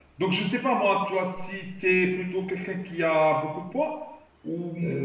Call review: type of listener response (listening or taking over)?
taking over